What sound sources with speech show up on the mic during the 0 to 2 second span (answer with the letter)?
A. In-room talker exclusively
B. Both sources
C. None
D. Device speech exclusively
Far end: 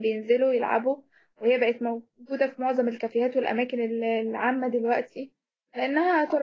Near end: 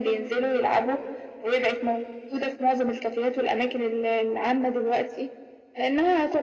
D